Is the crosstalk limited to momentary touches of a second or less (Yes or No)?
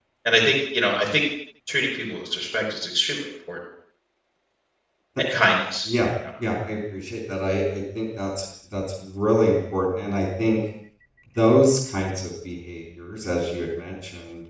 Yes